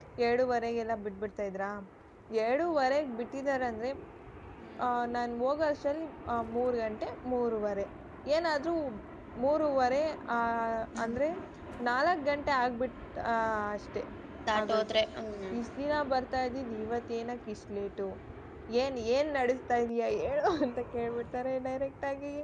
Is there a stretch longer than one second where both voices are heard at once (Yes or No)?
No